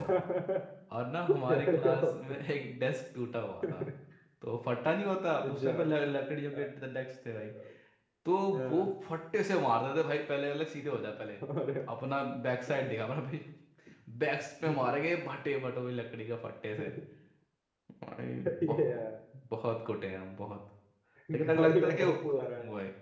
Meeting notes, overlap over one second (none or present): present